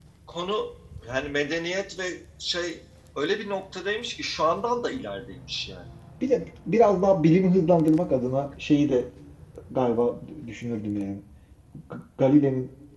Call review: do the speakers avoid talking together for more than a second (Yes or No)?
Yes